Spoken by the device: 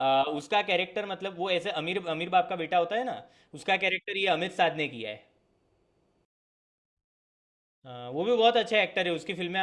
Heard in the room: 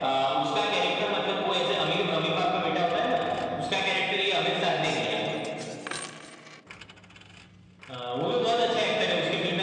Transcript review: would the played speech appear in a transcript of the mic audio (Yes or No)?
Yes